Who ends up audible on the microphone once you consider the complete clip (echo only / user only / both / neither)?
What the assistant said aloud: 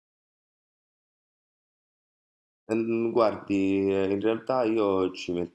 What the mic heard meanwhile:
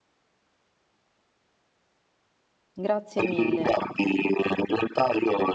both